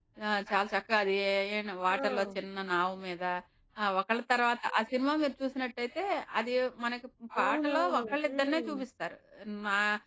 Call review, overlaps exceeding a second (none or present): present